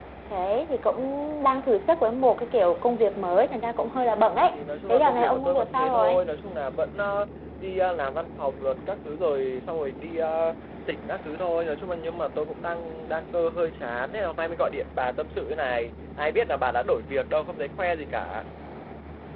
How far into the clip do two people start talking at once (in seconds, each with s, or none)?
4.9 s